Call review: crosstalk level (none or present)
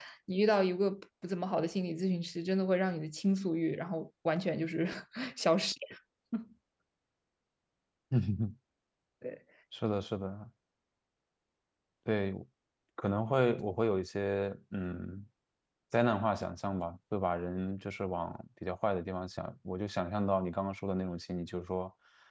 none